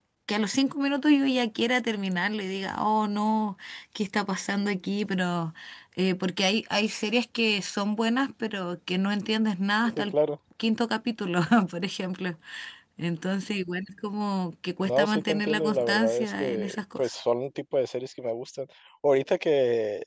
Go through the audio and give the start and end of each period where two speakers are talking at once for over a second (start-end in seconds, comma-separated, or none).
14.8-17.1